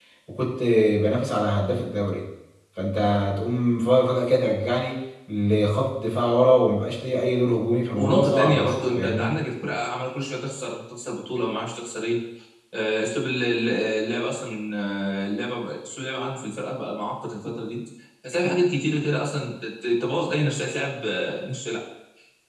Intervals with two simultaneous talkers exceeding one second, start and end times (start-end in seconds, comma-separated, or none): 8.0-9.4